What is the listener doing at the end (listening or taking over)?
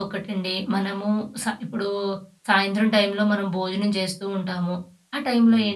listening